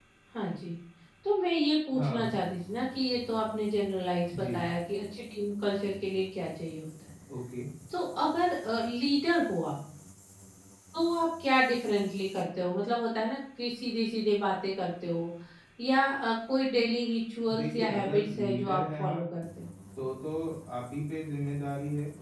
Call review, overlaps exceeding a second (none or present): present